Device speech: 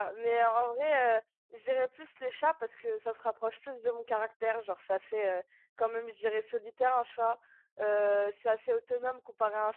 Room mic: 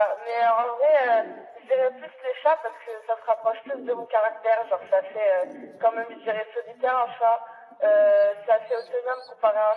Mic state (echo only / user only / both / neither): echo only